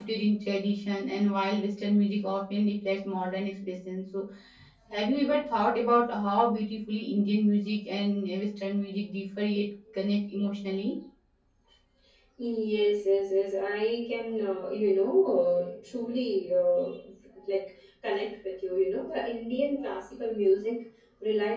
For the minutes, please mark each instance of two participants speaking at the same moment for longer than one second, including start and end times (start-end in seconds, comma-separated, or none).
none